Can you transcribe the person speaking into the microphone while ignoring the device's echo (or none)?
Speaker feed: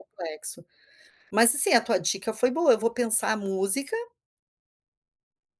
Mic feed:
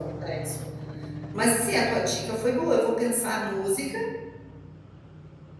none